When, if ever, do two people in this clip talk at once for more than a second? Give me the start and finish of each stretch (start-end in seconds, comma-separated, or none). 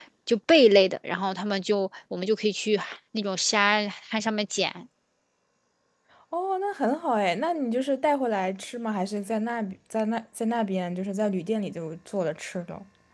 none